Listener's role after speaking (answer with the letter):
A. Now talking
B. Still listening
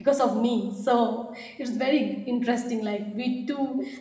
B